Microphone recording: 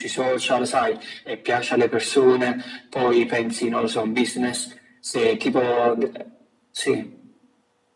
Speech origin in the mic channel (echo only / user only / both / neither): echo only